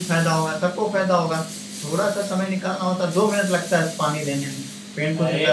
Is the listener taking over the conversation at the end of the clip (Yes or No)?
Yes